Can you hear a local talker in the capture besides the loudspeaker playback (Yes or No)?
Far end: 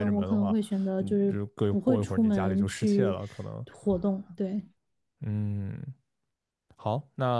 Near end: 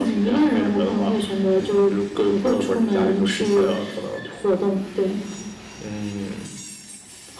No